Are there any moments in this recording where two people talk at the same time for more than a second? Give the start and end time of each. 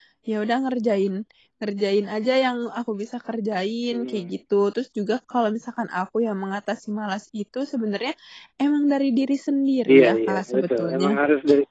9.9-11.2

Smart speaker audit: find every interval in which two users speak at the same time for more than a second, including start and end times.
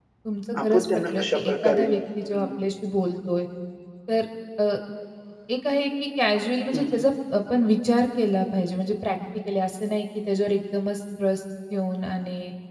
0.6-1.9

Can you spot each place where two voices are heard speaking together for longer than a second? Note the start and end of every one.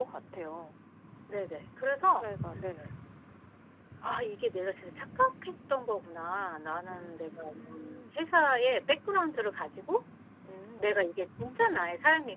6.9-8.2

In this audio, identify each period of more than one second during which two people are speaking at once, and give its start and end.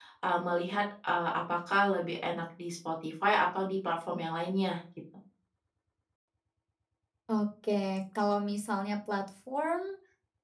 none

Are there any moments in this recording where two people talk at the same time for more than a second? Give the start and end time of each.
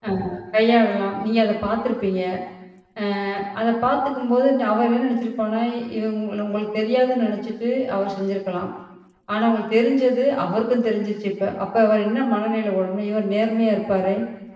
none

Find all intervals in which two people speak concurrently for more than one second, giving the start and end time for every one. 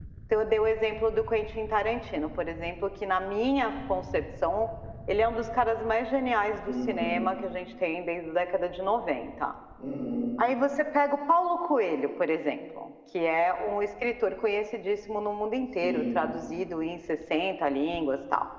none

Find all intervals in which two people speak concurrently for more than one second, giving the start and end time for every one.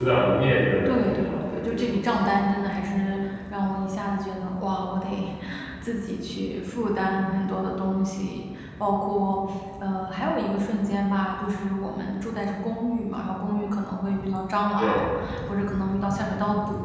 0.9-2.3

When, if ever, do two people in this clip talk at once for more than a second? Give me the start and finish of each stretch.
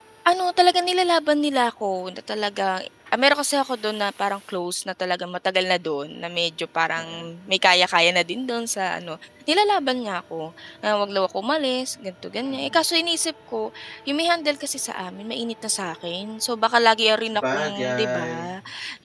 17.3-18.5

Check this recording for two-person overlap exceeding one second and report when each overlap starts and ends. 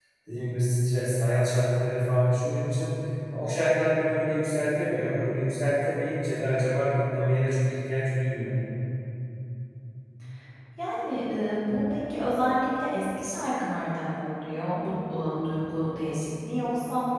none

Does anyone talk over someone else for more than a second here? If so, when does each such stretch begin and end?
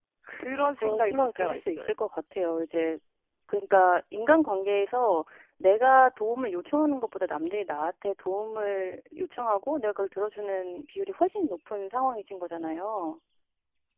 0.5-1.9

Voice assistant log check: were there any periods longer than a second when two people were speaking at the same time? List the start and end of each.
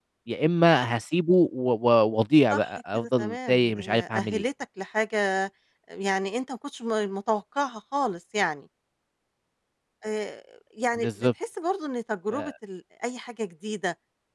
2.5-4.4

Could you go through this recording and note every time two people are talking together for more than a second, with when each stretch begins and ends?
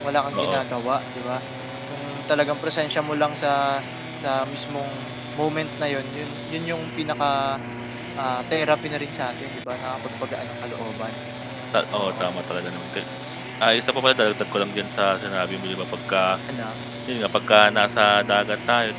none

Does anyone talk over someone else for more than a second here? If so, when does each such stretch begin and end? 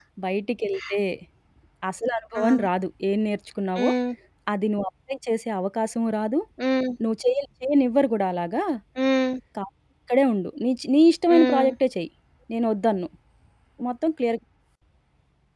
none

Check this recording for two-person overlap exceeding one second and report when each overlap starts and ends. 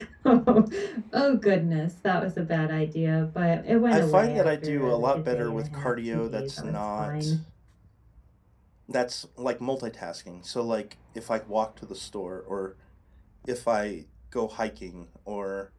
3.9-7.3

